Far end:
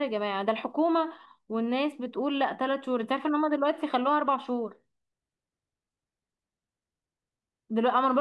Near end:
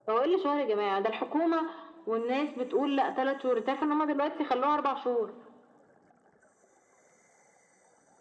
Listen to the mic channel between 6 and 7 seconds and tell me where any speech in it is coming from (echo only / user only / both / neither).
neither